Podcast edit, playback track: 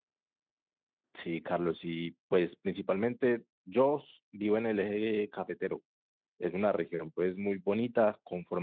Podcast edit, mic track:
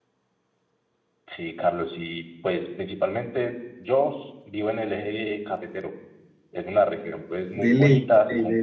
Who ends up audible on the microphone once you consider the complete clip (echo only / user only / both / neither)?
both